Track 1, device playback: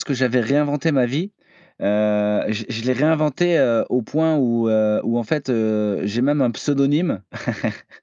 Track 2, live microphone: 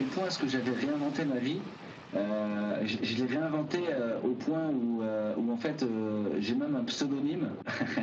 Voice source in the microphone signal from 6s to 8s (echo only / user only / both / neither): echo only